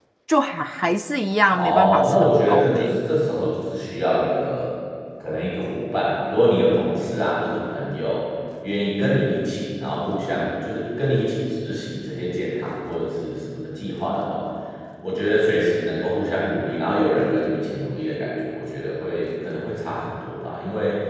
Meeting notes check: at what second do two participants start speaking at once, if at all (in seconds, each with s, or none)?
1.5 s